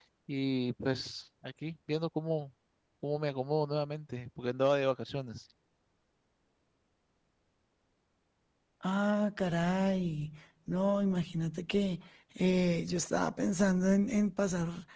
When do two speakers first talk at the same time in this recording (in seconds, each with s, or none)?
none